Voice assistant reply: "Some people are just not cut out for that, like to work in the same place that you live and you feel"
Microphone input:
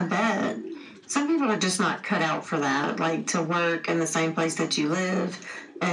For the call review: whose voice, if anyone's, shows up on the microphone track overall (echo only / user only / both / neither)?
echo only